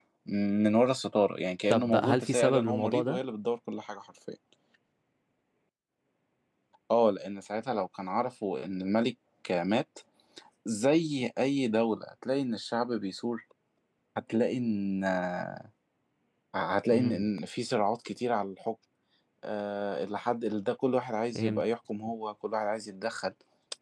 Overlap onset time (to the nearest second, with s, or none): 2 s